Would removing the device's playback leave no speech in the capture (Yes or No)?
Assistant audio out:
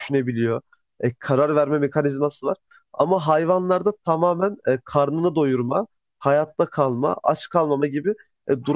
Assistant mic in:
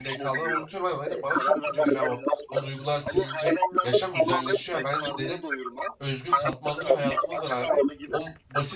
No